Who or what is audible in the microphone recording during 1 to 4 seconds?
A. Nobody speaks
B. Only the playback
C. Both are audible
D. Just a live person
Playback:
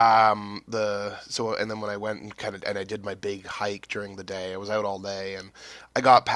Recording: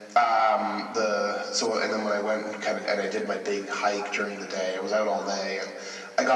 B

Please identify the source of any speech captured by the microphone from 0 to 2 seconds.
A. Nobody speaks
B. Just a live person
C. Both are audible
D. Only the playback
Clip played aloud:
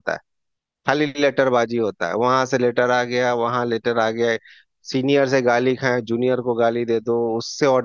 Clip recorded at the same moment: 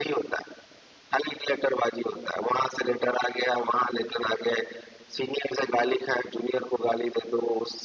D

